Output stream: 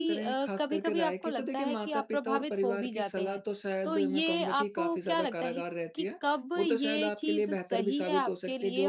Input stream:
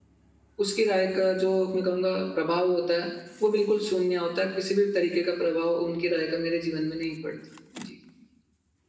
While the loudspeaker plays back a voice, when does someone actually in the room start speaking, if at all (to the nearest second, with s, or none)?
1 s